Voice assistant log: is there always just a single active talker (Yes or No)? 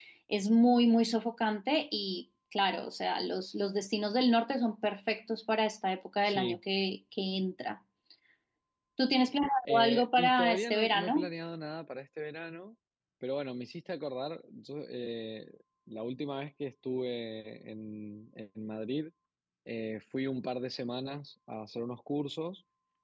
No